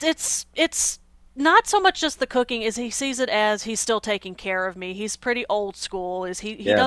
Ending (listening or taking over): listening